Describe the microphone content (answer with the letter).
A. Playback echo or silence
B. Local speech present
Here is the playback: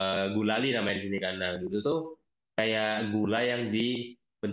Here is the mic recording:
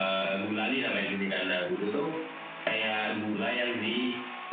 A